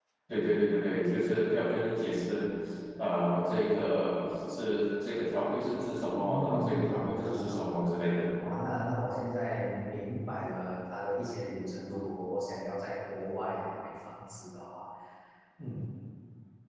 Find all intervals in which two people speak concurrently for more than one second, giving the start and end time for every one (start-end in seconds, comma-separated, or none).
6.2-8.0